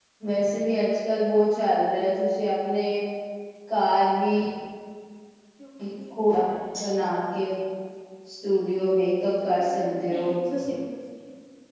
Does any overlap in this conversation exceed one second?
No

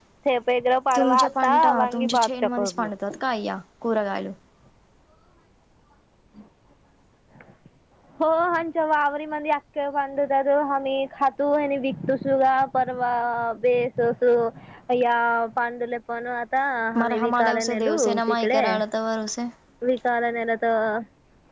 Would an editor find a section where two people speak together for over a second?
Yes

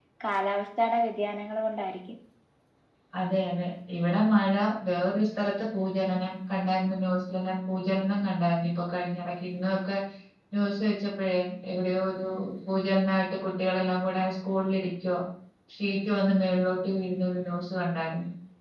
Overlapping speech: No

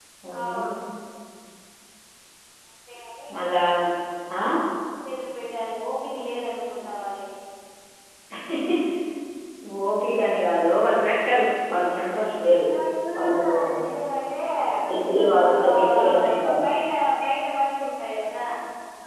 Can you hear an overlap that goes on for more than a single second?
Yes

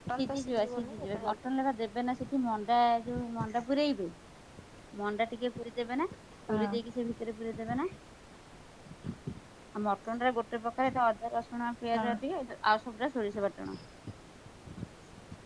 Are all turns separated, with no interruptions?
No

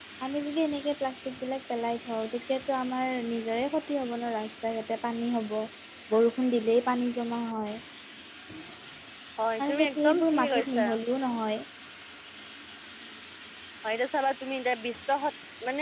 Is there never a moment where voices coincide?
No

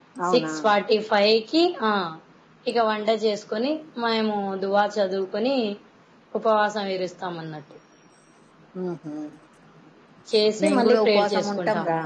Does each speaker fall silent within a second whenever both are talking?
No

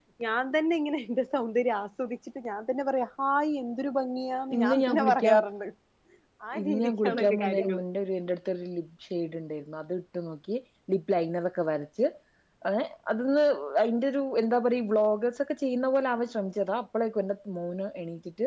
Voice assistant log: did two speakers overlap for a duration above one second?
Yes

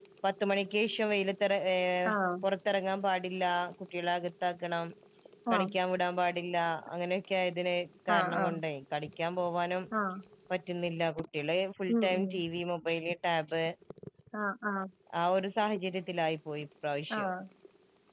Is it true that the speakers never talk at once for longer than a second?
Yes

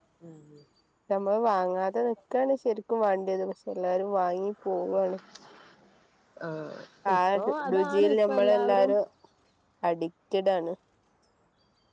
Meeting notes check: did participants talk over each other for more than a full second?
Yes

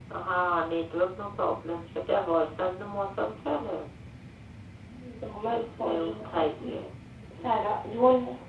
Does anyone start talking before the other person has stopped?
Yes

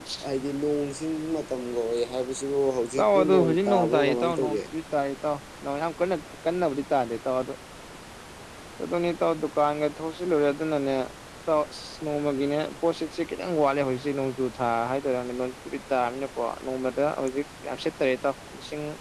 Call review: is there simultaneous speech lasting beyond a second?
Yes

